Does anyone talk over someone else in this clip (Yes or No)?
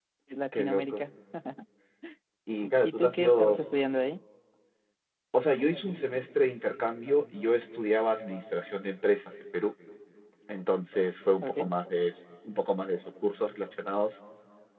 Yes